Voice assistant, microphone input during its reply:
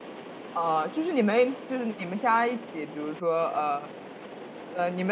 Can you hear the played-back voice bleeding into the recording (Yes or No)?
No